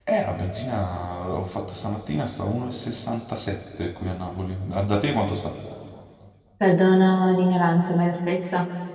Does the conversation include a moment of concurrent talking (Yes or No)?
No